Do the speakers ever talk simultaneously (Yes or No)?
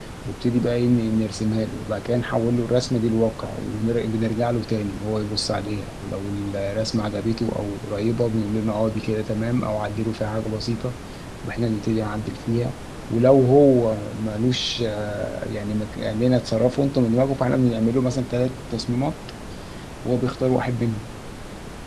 No